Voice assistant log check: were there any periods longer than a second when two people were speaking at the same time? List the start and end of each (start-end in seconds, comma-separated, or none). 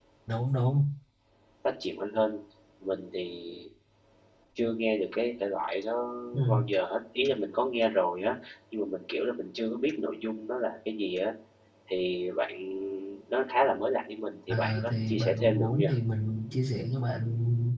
14.5-15.8